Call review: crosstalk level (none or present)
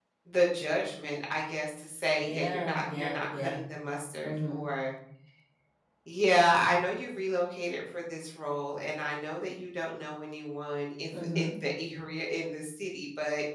present